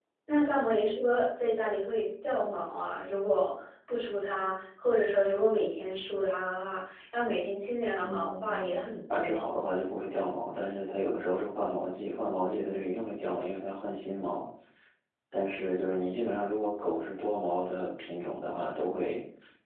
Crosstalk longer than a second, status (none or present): present